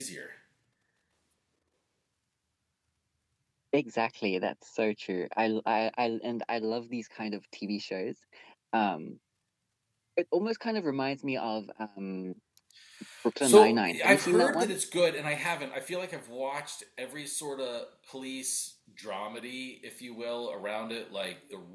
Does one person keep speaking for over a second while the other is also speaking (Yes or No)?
Yes